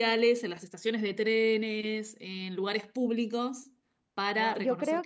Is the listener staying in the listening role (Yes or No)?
No